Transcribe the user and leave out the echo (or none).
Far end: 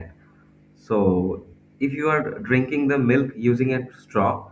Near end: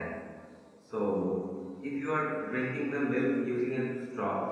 none